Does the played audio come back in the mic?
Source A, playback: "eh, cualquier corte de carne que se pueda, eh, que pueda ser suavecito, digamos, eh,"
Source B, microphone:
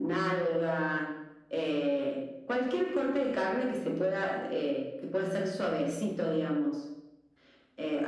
Yes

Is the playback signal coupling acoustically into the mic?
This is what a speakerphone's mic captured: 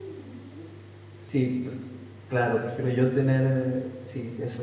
No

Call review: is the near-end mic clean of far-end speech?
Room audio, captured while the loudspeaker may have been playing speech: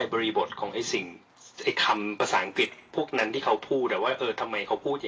No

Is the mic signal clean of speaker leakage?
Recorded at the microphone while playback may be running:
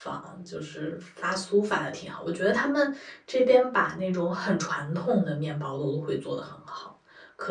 Yes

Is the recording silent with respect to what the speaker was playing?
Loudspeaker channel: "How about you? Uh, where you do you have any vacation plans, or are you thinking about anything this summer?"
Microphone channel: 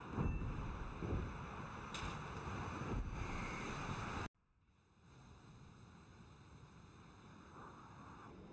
Yes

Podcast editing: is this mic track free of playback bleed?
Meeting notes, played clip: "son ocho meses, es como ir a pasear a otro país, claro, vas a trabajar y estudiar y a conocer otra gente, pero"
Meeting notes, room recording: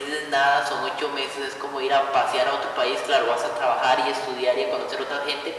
No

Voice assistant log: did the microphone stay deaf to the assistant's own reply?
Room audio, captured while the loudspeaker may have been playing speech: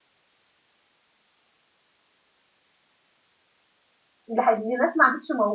Yes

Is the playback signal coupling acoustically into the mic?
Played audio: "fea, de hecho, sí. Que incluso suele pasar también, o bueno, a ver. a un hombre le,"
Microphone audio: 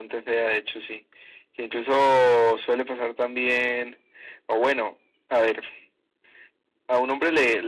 Yes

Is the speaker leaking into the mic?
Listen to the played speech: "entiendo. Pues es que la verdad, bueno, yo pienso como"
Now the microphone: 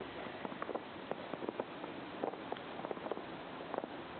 No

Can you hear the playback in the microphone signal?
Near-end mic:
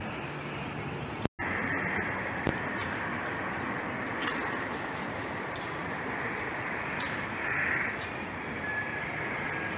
No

